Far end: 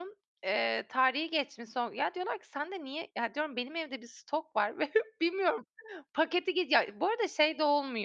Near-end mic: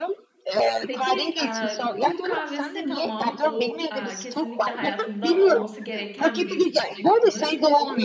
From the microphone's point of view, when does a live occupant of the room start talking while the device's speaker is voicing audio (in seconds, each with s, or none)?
0.9 s